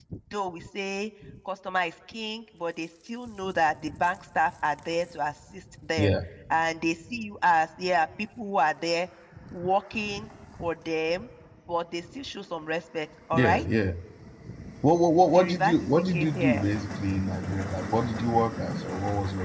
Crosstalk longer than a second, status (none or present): present